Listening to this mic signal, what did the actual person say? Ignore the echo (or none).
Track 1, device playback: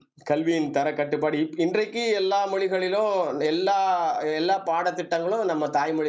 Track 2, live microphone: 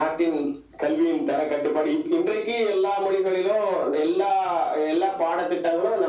none